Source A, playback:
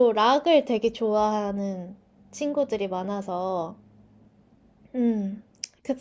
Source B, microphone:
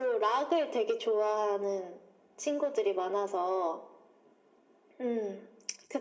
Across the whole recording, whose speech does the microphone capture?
echo only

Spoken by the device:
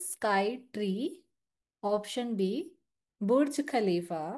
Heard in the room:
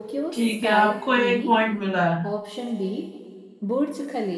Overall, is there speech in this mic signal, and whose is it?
both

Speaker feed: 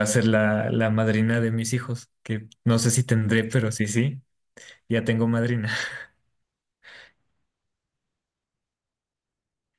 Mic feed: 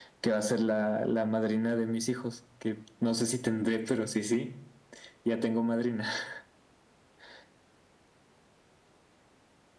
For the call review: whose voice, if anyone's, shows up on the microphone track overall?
echo only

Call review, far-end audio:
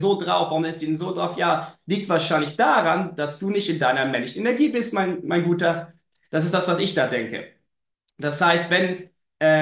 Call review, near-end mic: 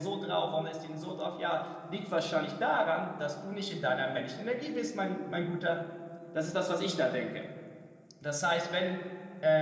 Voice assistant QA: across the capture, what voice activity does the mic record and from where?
echo only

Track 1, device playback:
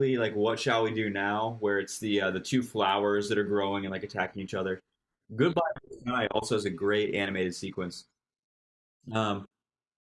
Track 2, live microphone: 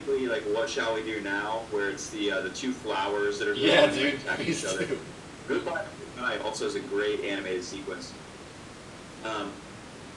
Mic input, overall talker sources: both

